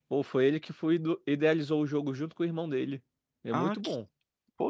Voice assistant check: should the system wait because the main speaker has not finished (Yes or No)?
No